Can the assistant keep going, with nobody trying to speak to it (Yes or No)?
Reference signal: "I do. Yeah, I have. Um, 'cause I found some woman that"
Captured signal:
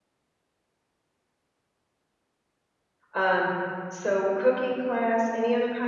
No